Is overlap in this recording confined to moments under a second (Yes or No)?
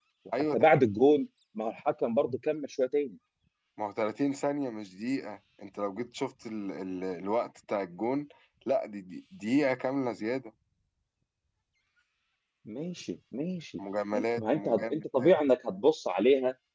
No